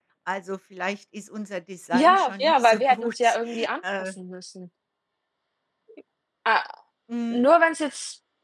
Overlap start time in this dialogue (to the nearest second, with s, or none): 2 s